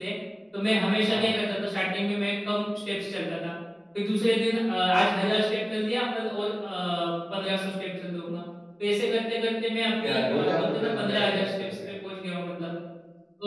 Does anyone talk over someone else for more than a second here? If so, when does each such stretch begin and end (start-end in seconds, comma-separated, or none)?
10.0-11.9